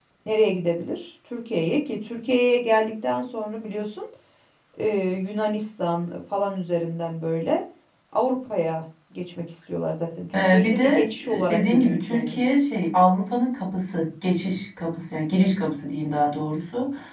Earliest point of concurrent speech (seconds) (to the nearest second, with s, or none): 10 s